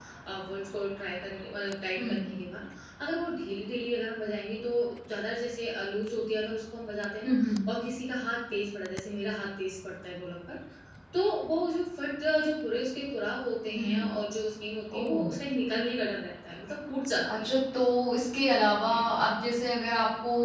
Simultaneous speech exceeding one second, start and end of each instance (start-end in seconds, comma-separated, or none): none